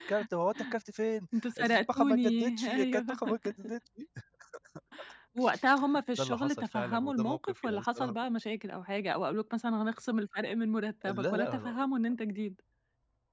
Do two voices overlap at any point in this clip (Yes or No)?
Yes